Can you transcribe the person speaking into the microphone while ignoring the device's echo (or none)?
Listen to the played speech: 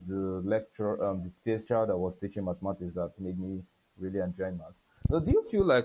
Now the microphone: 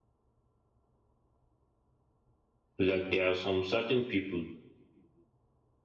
like there are some certain people